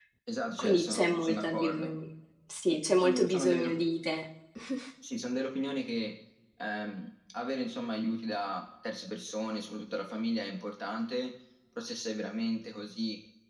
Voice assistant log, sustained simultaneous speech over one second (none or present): present